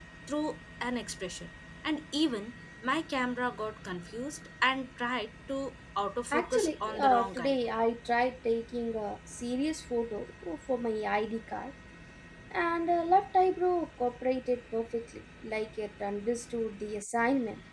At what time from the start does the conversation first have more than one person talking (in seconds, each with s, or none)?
6.3 s